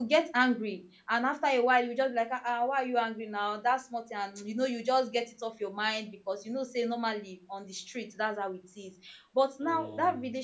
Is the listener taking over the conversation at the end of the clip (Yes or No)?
No